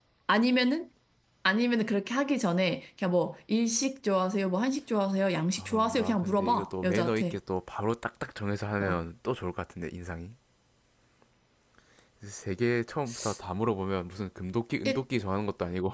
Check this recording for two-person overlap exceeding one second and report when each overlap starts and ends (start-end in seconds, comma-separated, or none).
5.6-7.4